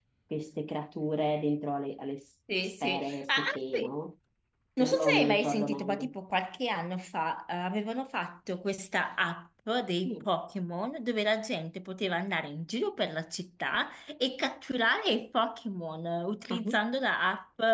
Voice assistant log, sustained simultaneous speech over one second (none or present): present